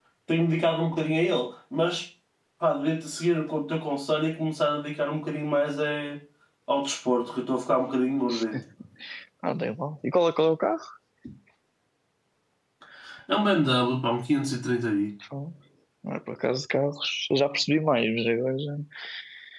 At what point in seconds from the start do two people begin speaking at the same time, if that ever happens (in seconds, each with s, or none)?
none